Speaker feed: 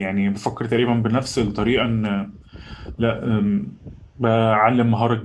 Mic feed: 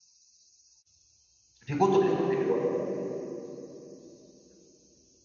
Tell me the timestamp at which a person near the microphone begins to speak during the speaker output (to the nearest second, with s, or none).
2 s